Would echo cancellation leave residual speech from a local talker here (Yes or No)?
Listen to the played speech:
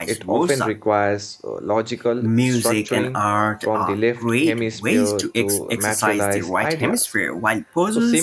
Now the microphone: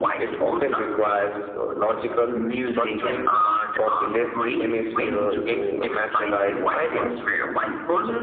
No